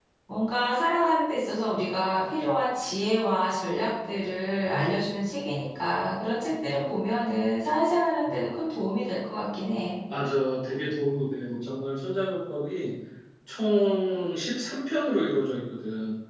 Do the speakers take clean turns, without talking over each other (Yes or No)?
Yes